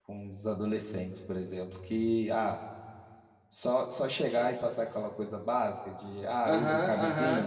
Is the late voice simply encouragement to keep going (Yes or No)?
No